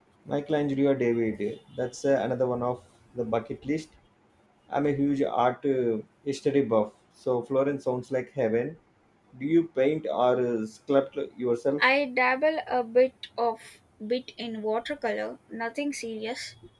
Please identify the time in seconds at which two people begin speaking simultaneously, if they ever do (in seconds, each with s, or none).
none